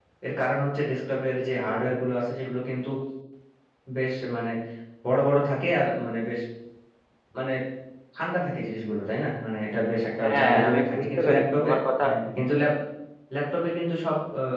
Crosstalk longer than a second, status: present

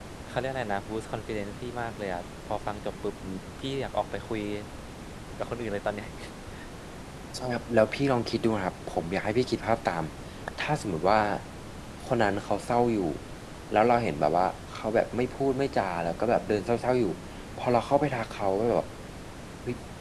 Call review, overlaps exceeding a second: none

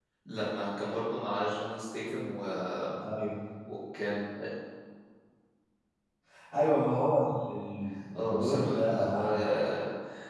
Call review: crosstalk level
present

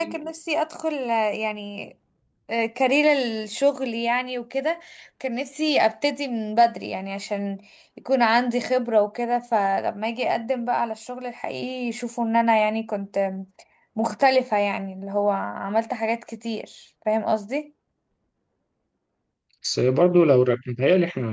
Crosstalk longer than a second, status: none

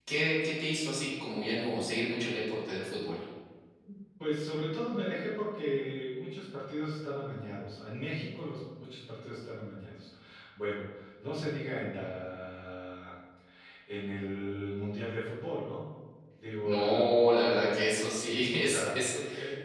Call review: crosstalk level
present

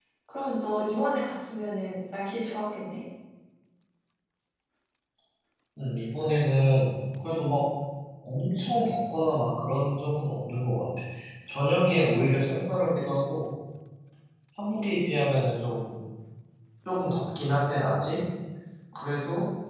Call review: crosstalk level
none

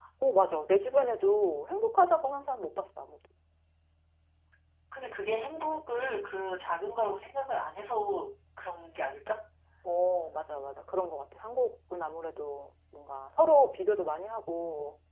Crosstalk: none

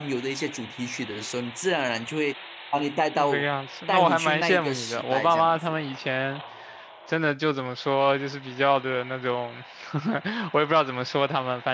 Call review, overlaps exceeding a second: present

